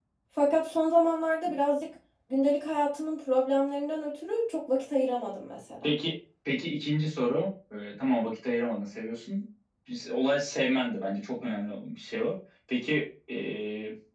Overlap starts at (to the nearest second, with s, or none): none